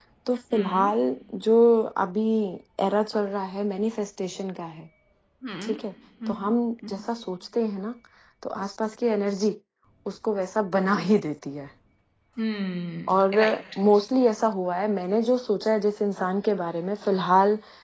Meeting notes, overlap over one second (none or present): none